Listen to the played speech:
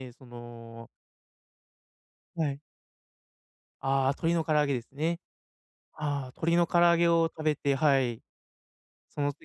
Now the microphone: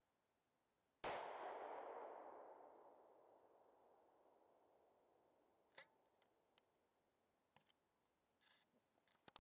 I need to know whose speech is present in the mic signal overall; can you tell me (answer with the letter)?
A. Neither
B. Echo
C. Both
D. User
A